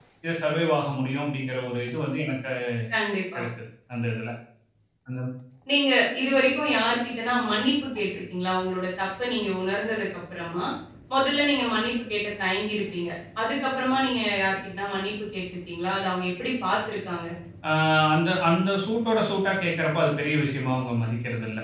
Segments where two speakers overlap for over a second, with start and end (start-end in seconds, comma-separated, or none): none